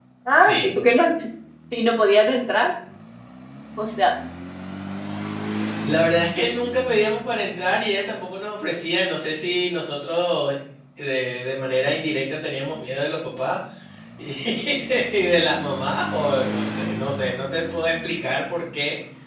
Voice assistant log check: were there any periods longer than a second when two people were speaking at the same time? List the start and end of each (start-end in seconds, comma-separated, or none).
none